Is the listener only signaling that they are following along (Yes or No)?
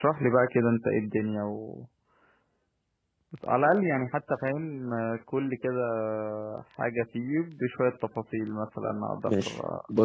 No